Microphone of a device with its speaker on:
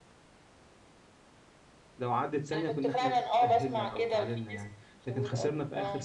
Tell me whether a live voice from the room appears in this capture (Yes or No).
Yes